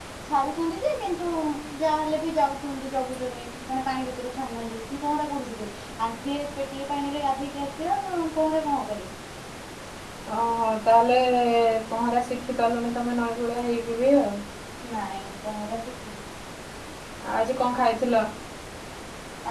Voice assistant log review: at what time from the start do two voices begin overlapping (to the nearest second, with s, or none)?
none